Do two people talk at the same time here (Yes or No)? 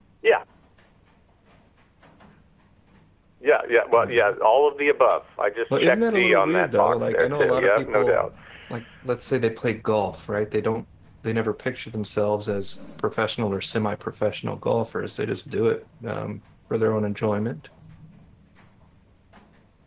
Yes